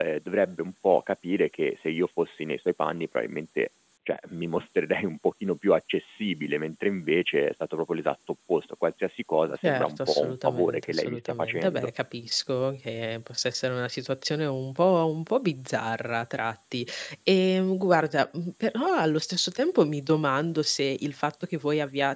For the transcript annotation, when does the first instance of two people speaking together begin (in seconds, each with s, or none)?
9.6 s